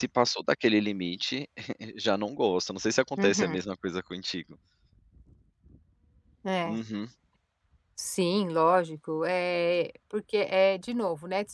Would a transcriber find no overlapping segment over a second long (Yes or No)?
Yes